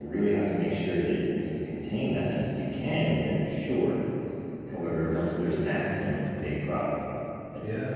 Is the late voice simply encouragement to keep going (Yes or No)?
Yes